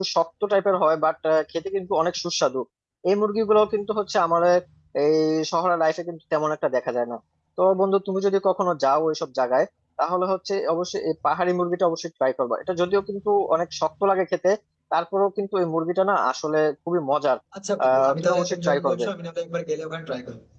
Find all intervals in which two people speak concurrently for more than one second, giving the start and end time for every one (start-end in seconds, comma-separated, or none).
17.8-19.1